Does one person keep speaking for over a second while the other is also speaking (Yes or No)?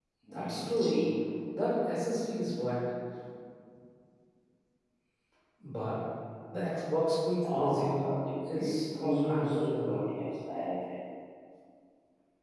Yes